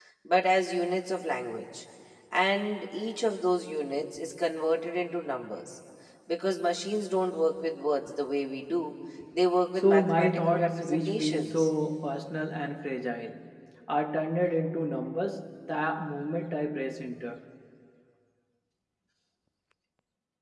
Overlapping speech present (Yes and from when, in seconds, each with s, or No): Yes, from 9.8 s